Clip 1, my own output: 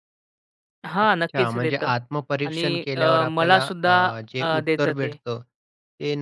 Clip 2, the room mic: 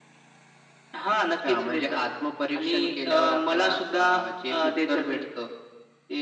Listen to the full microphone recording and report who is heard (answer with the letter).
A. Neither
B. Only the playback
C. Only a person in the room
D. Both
B